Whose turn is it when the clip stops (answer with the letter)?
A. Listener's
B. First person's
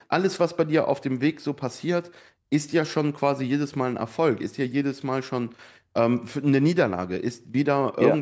B